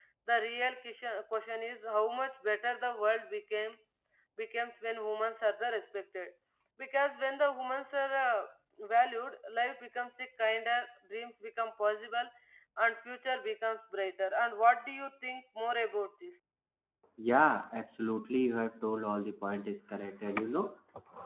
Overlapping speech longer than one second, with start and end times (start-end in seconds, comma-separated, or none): none